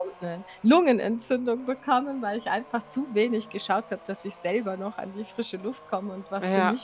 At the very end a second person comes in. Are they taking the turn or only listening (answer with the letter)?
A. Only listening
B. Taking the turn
B